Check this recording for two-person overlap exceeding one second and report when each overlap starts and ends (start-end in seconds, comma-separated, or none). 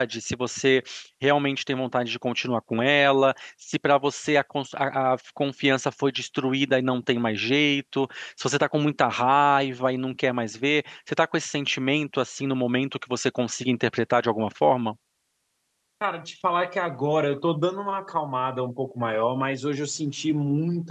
none